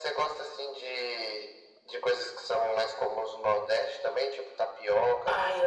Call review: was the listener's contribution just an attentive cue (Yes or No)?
No